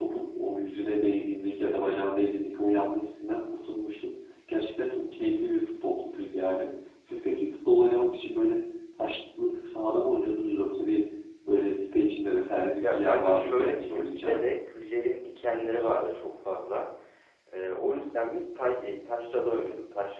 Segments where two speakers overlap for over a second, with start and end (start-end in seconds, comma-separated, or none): 12.8-14.6